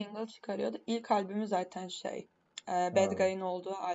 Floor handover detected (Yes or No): No